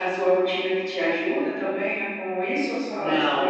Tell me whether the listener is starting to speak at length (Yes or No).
Yes